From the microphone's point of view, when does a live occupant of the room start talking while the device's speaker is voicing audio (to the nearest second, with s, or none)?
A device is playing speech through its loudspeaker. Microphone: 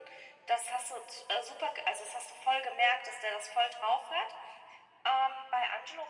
none